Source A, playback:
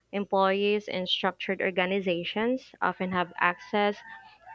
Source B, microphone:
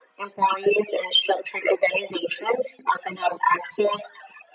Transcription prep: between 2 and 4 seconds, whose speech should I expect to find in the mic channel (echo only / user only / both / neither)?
echo only